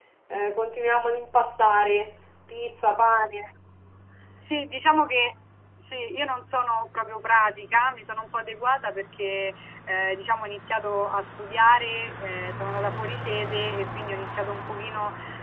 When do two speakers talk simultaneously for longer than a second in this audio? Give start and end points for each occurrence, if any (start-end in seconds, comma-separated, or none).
none